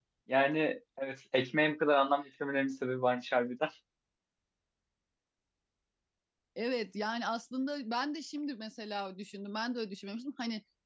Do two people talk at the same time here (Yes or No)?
No